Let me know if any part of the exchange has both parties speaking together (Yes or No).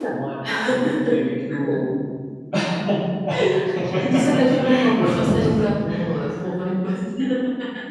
Yes